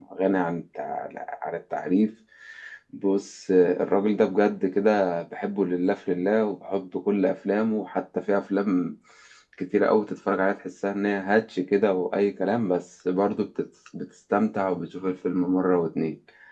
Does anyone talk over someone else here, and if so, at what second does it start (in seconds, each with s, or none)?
none